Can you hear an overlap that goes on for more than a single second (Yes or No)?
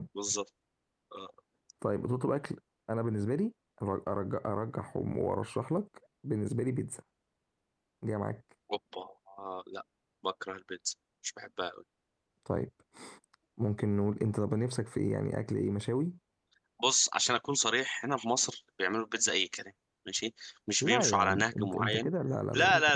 Yes